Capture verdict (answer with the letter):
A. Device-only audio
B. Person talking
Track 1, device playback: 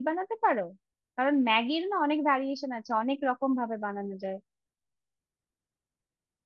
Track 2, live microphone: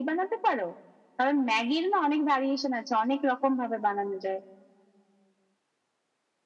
A